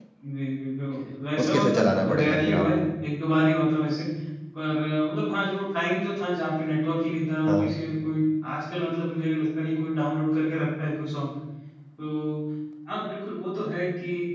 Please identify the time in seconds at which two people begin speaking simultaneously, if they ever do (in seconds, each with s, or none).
1.4 s